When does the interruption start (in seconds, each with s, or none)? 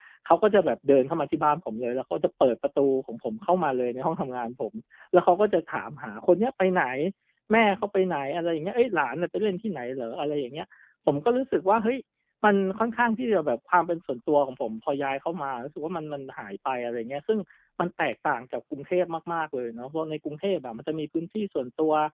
none